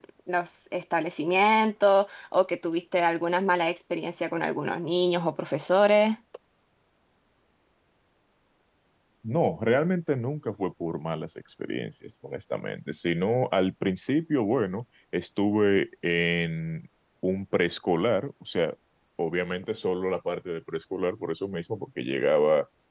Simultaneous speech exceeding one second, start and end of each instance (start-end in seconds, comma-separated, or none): none